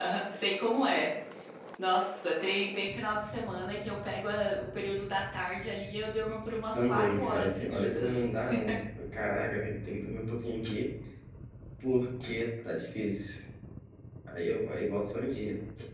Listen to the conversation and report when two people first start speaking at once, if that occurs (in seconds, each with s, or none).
6.7 s